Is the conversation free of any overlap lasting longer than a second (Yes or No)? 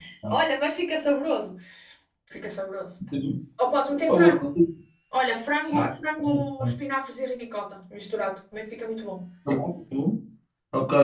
Yes